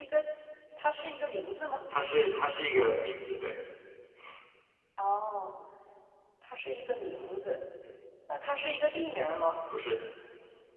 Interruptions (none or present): none